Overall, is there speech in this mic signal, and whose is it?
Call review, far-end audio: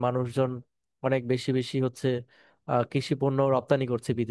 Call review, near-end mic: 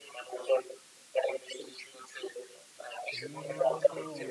both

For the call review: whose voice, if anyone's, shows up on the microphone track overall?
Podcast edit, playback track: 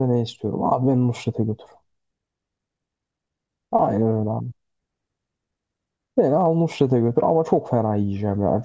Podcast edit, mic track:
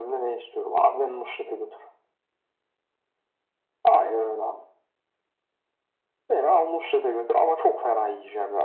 echo only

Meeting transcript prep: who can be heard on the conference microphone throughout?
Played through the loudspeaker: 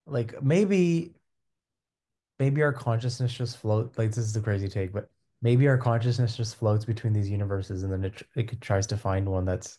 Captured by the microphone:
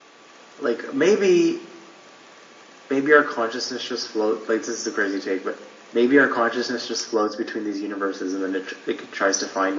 echo only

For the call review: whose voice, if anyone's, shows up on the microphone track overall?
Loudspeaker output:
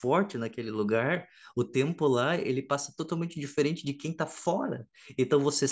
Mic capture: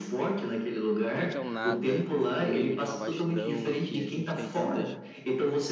both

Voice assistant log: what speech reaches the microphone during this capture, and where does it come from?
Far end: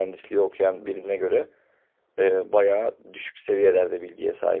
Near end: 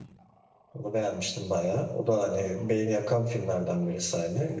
user only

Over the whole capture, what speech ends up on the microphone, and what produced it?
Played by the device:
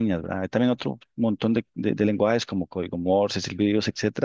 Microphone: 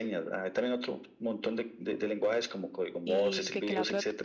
both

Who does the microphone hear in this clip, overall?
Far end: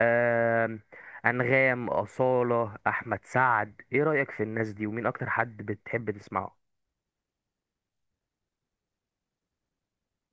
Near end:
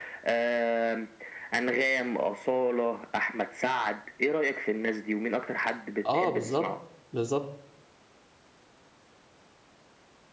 both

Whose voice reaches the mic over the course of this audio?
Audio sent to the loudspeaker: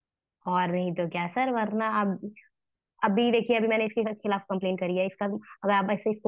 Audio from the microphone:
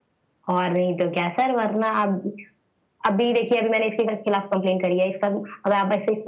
echo only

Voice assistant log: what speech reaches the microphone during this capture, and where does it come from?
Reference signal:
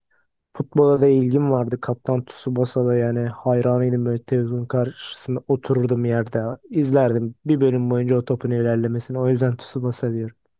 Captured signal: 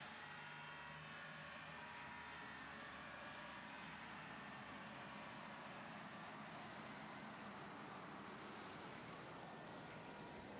neither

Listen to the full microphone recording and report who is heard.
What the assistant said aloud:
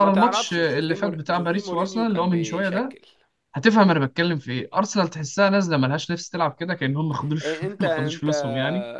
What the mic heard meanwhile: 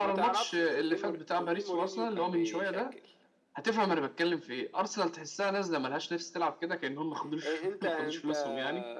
echo only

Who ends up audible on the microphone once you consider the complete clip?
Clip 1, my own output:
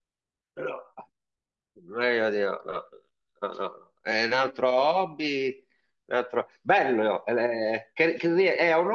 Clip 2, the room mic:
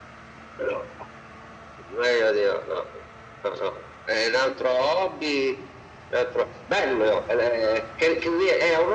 echo only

